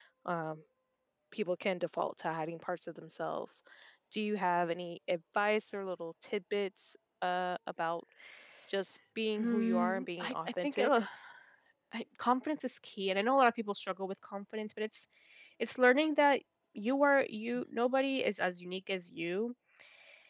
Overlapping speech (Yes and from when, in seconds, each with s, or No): Yes, from 9.4 s